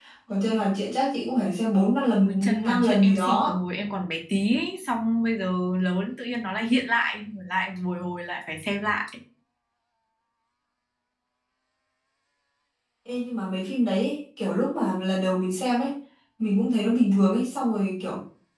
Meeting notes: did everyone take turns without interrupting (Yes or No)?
No